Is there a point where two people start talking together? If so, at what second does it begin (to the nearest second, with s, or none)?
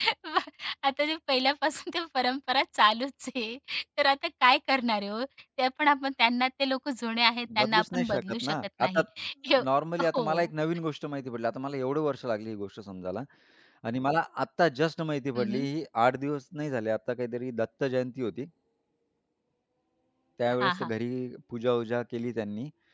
8 s